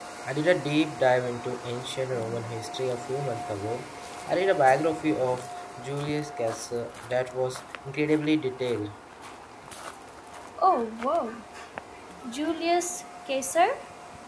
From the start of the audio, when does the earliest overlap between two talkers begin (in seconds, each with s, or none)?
none